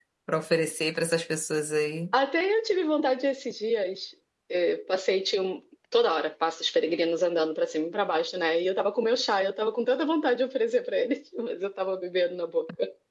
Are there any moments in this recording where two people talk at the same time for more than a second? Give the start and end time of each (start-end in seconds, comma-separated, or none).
none